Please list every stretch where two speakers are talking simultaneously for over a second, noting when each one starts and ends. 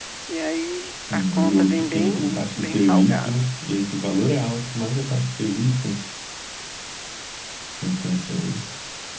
1.1-3.5

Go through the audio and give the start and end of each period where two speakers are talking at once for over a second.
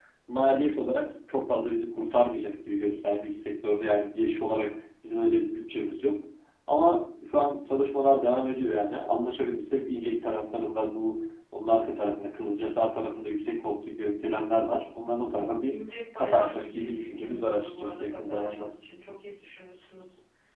16.2-18.7

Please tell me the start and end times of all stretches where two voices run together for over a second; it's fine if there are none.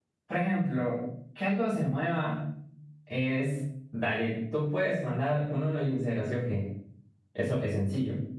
none

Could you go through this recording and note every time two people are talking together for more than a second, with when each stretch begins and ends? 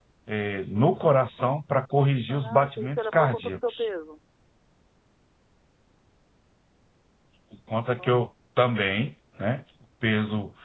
2.3-3.9

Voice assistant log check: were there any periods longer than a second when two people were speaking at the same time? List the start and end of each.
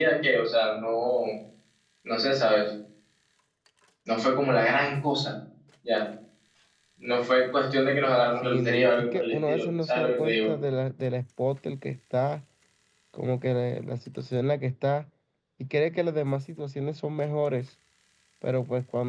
8.4-10.5

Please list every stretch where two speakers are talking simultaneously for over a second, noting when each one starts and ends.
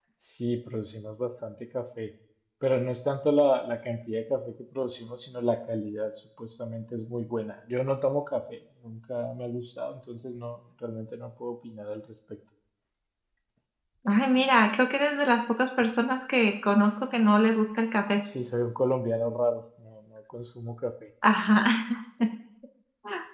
none

